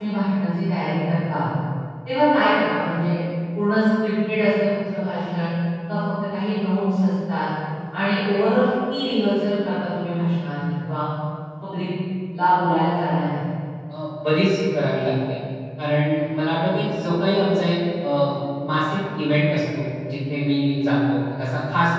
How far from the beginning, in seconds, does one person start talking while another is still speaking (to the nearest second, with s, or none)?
none